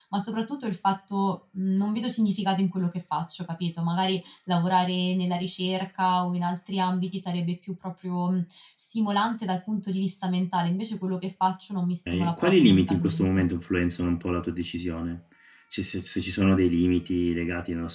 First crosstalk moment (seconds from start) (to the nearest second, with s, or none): 12 s